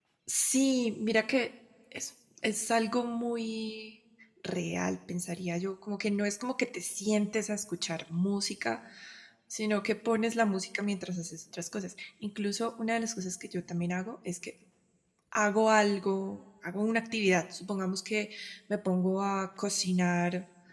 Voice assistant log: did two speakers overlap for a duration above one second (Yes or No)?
No